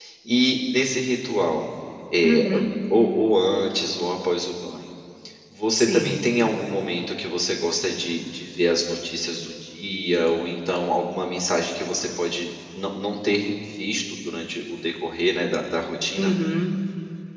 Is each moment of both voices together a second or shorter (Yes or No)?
Yes